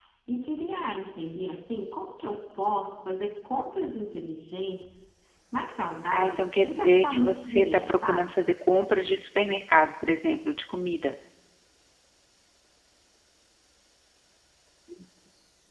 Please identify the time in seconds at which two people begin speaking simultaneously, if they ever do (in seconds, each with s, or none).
6.1 s